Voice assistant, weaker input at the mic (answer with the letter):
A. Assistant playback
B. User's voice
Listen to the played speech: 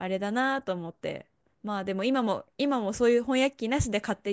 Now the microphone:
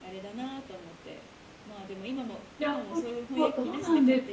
A